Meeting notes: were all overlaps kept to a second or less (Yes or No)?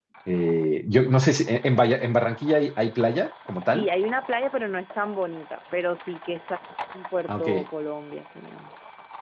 Yes